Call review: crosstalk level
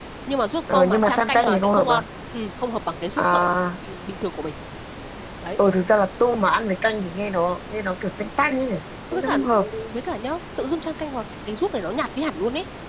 present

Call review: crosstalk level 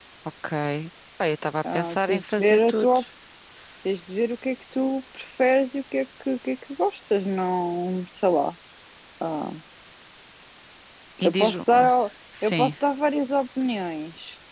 present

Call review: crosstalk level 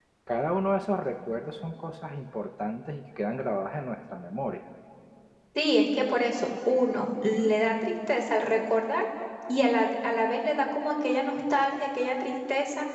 none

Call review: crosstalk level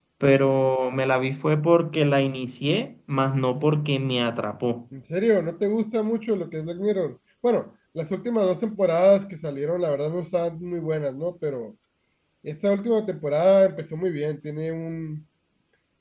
none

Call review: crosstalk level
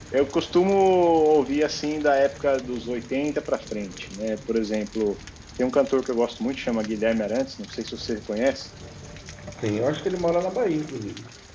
none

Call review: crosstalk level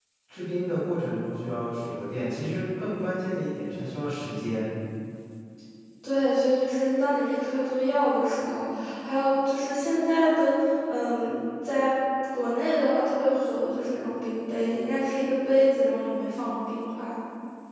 none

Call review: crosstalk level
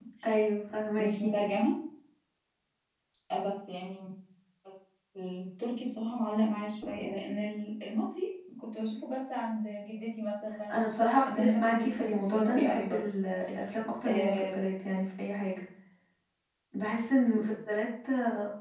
present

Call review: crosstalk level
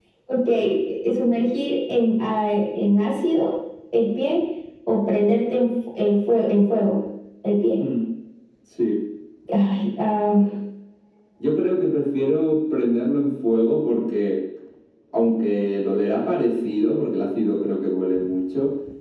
none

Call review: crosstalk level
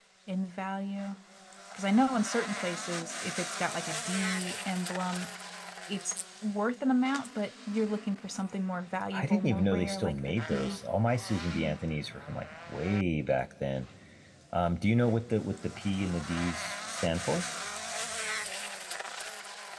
present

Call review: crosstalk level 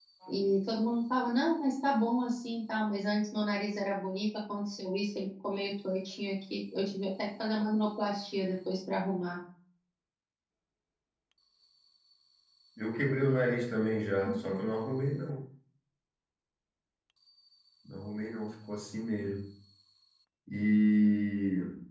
none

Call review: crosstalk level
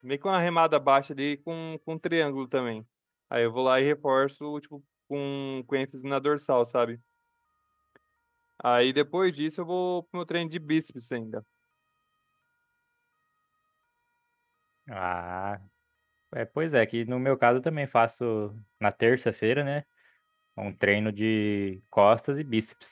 none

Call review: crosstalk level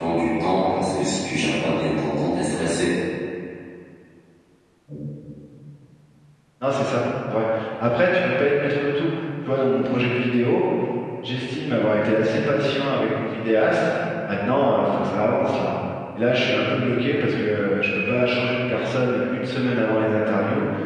none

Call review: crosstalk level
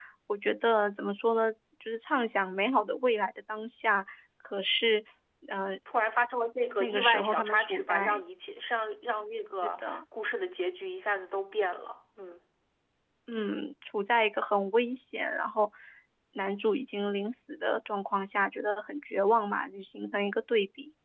present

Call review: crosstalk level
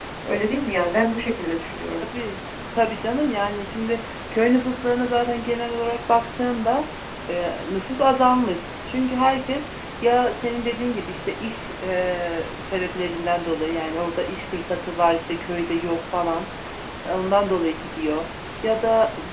none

